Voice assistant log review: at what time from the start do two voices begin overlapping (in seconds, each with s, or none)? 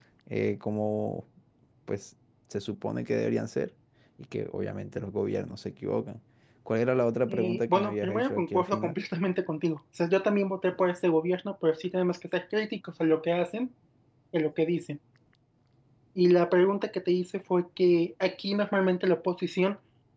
7.3 s